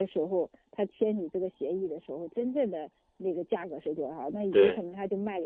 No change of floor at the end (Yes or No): Yes